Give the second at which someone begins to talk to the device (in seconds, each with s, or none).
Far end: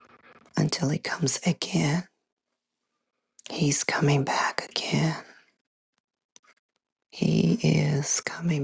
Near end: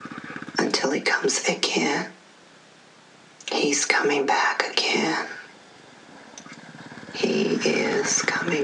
none